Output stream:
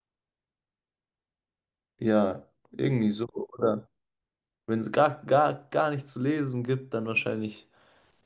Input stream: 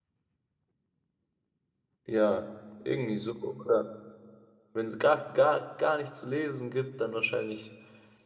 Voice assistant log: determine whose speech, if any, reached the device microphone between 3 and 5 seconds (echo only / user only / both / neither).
echo only